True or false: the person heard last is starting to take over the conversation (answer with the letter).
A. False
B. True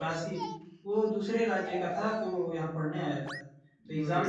A